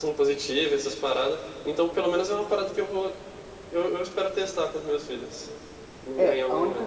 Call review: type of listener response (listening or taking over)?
taking over